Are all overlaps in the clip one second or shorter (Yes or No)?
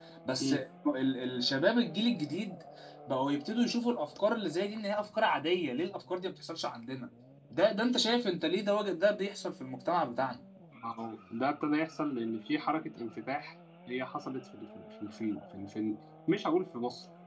Yes